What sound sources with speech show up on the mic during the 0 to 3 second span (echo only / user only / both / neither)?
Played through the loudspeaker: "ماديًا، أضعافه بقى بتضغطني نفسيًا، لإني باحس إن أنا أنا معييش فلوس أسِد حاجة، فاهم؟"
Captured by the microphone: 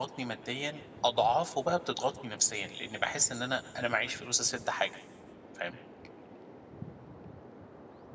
echo only